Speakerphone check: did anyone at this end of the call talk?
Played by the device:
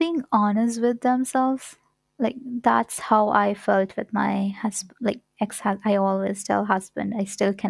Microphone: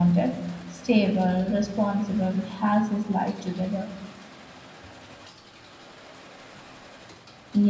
Yes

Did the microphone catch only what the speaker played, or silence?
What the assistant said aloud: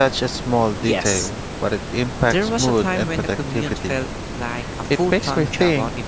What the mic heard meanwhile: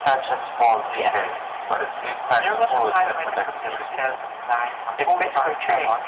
Yes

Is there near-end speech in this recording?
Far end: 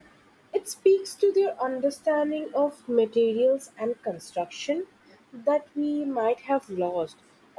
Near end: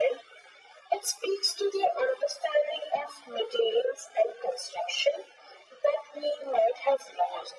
No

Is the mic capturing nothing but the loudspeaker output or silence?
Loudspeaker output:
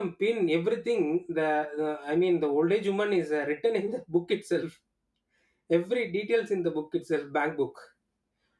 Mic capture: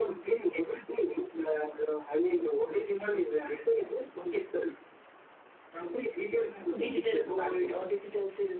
No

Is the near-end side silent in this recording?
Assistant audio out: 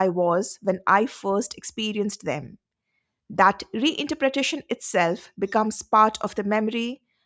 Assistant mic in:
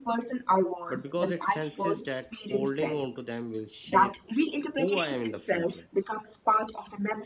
No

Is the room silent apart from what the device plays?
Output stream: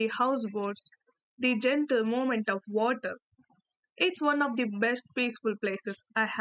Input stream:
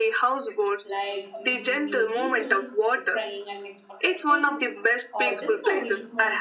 No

